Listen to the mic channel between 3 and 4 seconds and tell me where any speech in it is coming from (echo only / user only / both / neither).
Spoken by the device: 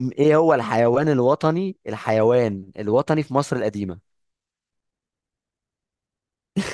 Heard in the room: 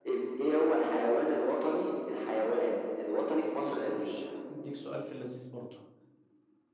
both